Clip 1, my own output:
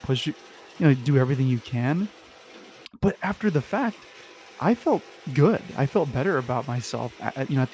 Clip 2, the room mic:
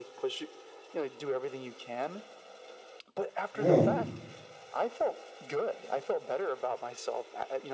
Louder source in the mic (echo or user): user